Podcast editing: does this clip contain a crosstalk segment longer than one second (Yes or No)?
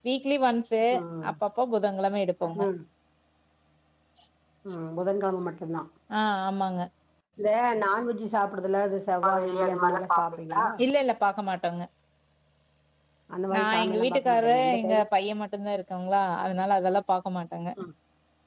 Yes